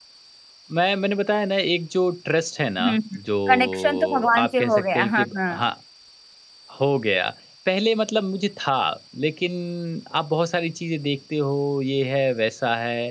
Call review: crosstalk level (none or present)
present